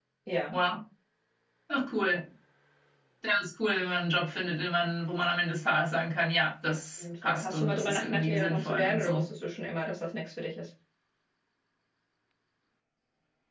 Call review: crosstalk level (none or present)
present